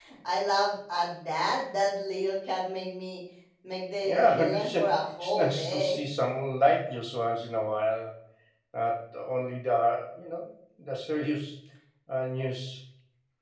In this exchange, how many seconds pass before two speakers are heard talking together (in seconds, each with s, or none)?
4.0 s